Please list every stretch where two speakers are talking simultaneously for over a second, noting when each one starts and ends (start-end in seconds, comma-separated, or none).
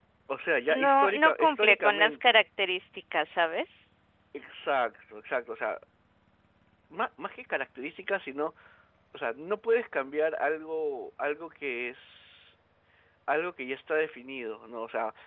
0.8-2.4